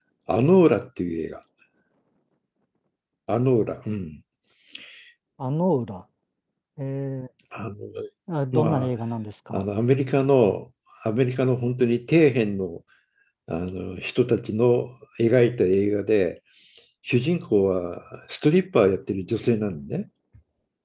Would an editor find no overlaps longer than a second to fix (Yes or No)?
Yes